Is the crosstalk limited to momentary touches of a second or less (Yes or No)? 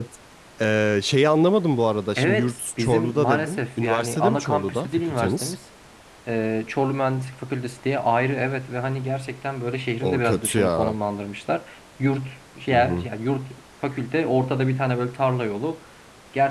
No